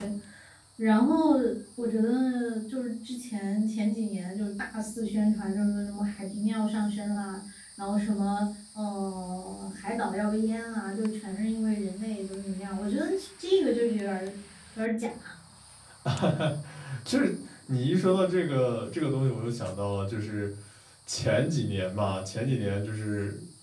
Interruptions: none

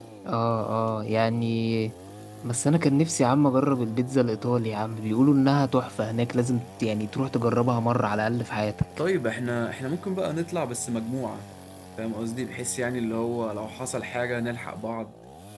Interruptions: none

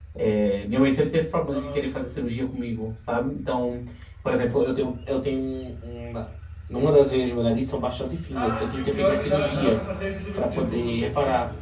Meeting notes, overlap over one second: present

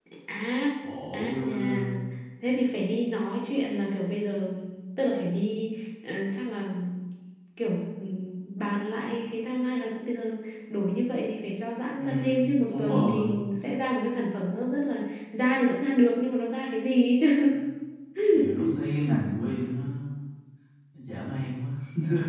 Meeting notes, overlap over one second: present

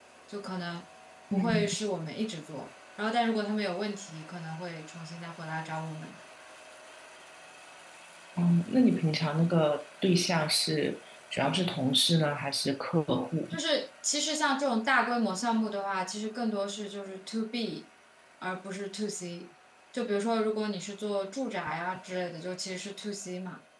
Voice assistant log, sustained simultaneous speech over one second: none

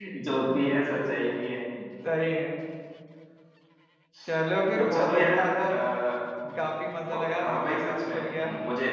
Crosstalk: present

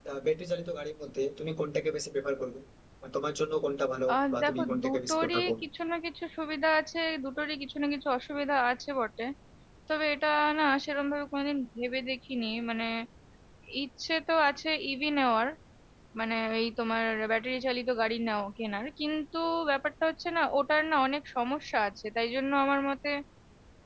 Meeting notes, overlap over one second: present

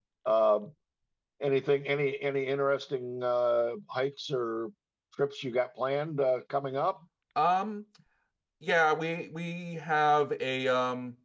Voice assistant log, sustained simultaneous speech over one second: none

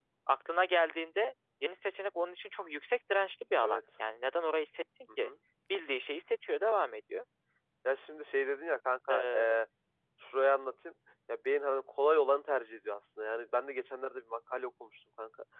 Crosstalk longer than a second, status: none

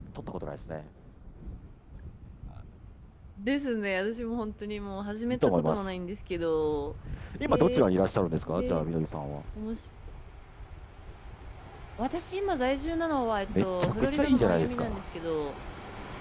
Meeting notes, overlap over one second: present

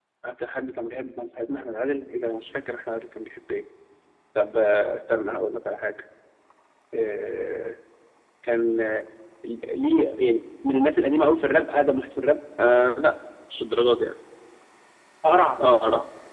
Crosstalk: none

